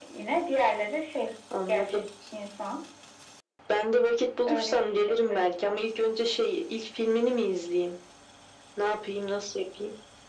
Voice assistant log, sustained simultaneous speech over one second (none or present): present